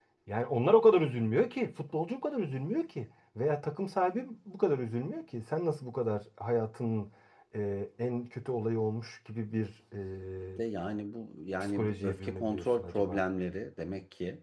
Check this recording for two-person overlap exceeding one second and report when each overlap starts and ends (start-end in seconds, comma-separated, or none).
11.6-13.2